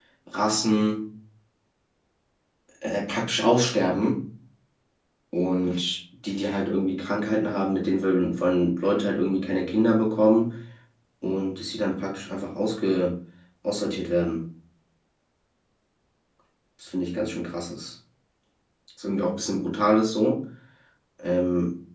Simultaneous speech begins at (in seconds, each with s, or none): none